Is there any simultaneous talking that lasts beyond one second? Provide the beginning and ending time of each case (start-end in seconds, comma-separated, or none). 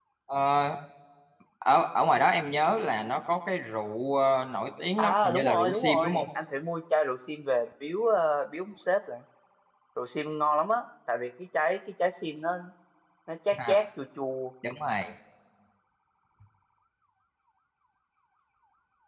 5.0-6.2